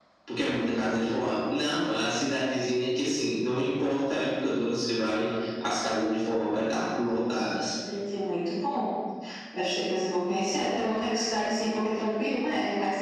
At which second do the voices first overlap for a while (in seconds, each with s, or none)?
none